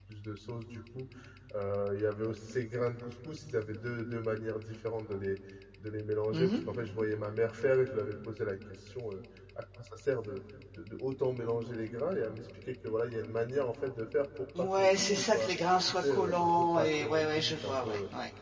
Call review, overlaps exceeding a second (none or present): present